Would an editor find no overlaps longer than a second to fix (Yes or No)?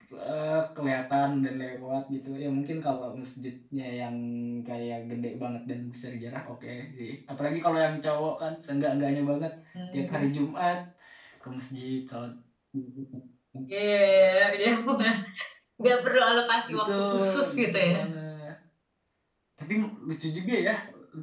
No